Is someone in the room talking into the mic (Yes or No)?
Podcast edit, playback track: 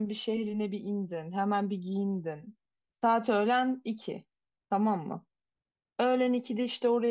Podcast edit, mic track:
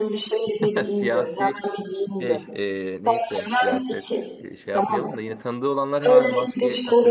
Yes